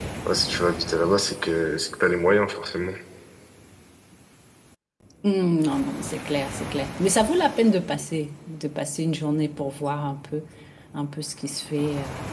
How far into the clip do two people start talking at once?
none

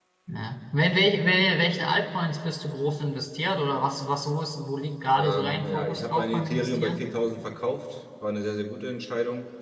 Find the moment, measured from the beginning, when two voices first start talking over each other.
5.2 s

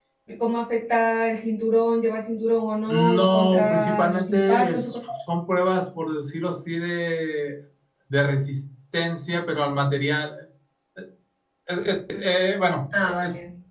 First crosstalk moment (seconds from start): 2.9 s

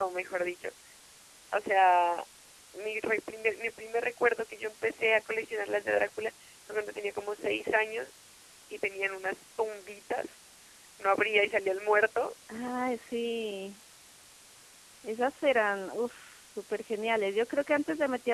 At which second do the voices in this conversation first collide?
none

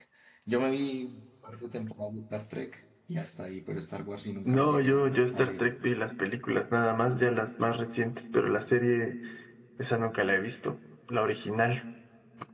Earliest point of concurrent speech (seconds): 4.4 s

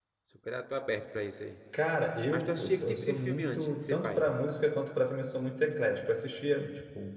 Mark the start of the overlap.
2.3 s

